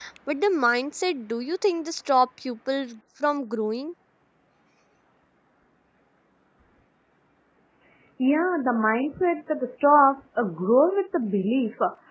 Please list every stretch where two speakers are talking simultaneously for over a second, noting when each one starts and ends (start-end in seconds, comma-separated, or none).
none